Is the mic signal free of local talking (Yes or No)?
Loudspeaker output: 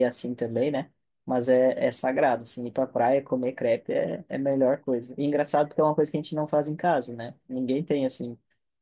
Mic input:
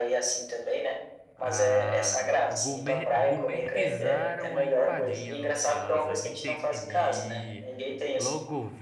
No